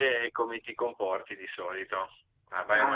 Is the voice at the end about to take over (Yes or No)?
No